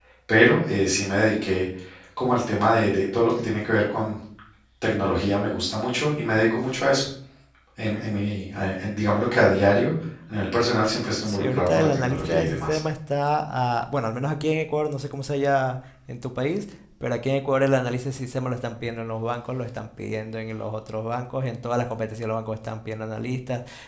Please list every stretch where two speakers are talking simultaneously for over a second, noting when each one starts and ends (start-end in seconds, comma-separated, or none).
11.2-12.8